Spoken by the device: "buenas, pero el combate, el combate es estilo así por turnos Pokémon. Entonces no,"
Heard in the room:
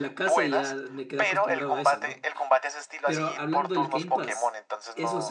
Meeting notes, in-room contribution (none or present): present